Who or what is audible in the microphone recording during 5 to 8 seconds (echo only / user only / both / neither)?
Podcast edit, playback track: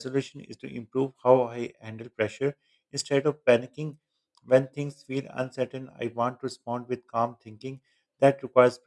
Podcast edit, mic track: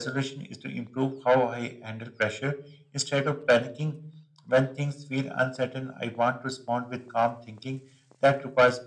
echo only